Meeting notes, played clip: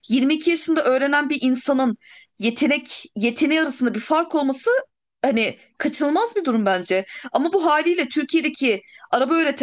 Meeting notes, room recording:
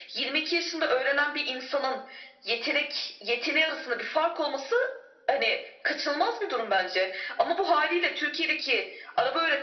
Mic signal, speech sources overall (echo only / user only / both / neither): echo only